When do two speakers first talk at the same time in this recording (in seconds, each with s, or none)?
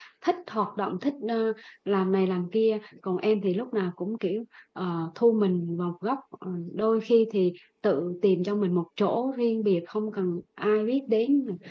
none